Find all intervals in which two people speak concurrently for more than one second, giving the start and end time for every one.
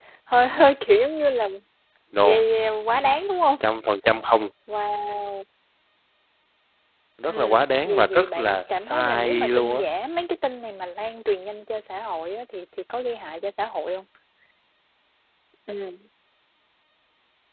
7.3-9.8

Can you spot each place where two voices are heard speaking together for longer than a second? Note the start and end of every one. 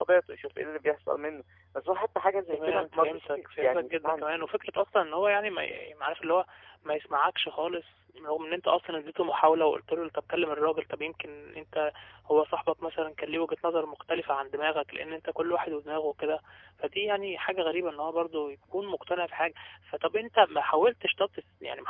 2.5-4.5

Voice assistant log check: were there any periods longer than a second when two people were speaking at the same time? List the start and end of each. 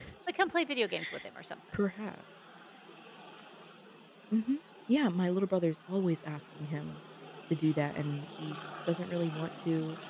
none

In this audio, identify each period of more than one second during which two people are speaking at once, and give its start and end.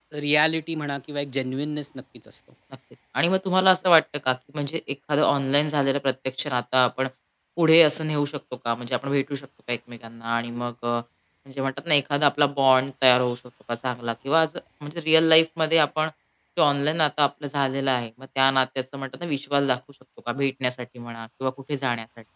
none

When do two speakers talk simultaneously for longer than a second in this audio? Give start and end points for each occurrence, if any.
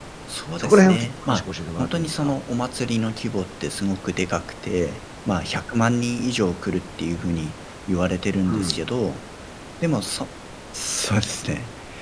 0.6-2.3

